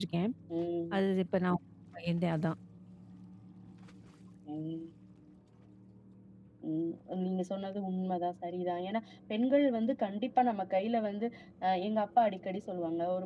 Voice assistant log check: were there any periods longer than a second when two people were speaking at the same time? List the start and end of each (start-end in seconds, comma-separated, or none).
none